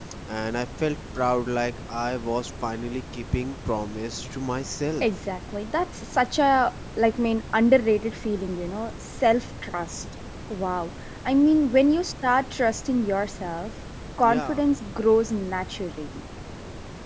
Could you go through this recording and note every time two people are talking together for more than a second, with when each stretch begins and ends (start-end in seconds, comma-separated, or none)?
none